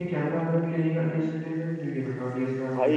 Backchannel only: No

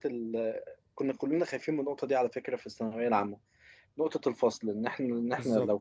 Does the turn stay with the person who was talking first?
Yes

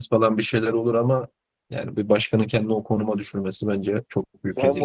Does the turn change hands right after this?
Yes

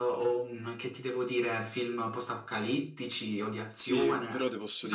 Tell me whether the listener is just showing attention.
No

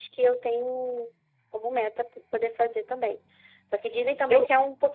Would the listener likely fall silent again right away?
Yes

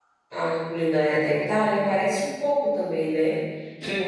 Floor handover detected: Yes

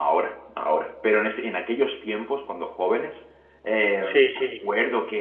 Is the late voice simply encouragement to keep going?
Yes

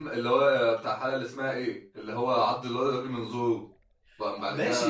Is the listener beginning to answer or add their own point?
Yes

